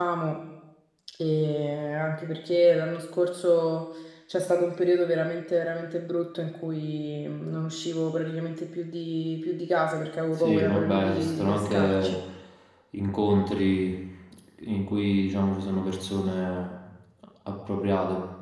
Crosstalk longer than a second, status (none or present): present